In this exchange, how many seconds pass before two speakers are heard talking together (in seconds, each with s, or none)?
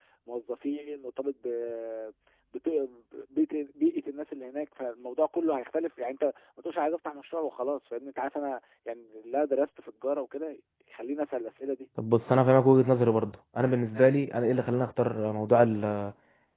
none